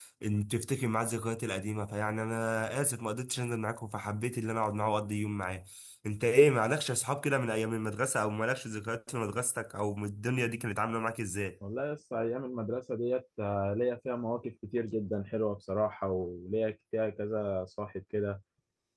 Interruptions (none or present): none